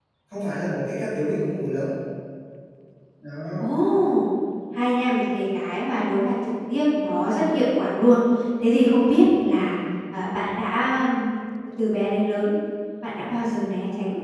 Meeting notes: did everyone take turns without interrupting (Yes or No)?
Yes